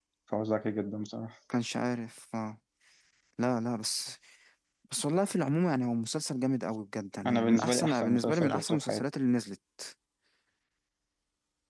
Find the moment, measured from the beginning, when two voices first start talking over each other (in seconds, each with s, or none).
7.2 s